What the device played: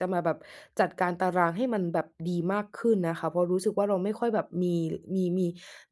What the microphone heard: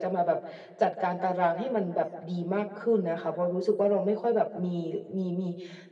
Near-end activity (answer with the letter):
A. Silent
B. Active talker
A